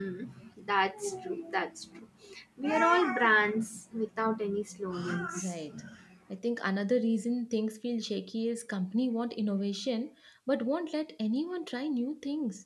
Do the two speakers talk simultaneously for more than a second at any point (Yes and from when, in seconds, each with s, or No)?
No